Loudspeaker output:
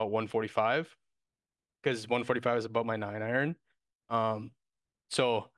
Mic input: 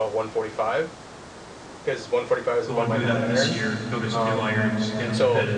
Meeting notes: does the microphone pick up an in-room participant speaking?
Yes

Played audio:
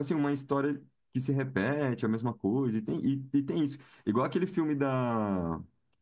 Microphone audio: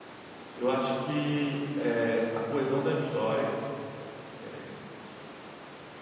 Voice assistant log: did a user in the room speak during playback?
Yes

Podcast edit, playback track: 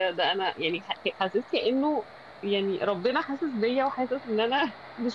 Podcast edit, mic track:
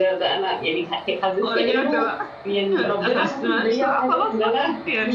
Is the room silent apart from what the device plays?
No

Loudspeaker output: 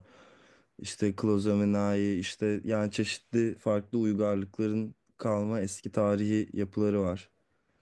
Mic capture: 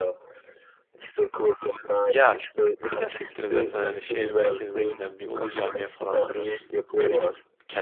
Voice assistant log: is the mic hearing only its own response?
No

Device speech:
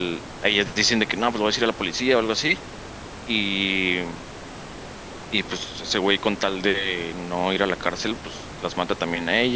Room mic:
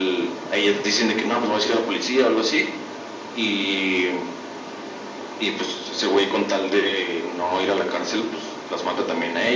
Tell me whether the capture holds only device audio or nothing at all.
Yes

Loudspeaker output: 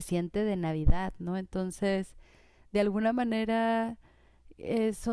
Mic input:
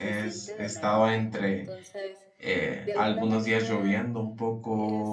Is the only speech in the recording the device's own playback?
No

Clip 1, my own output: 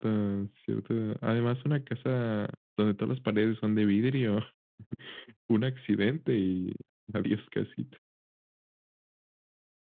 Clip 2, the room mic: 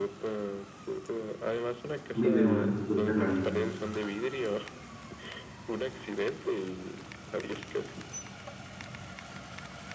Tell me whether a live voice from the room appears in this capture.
Yes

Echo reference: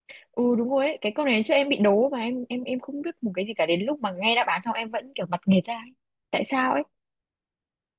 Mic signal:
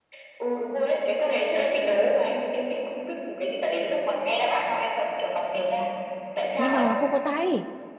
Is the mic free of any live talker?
No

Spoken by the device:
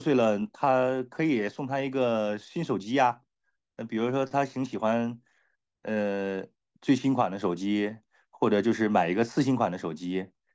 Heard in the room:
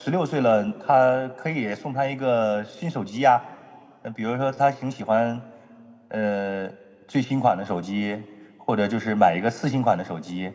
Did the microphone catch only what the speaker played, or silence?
Yes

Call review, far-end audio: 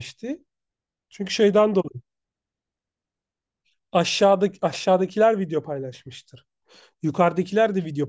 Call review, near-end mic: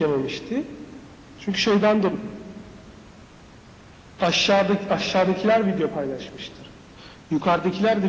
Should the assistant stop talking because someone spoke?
No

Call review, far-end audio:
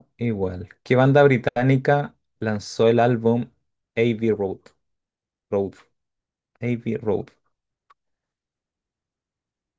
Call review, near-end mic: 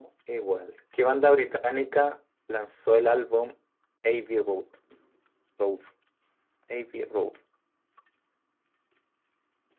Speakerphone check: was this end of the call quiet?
Yes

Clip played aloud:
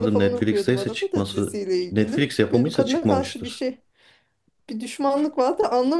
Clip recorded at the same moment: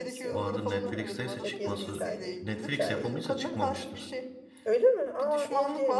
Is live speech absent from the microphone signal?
No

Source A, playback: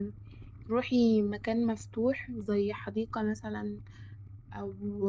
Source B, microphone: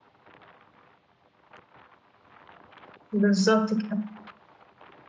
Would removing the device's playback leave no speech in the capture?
No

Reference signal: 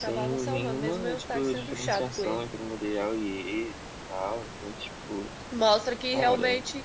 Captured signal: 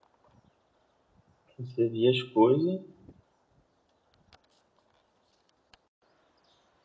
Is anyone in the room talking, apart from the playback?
Yes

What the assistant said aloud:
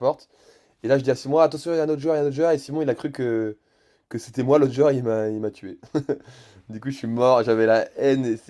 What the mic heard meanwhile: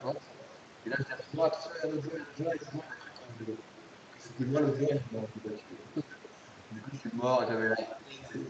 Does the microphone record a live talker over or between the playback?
No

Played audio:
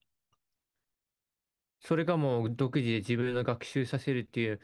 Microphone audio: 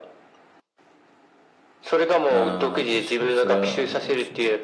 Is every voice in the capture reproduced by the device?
No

